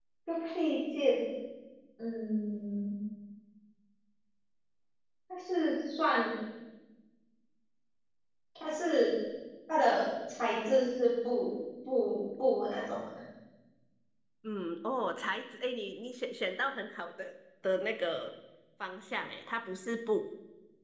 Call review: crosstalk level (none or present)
none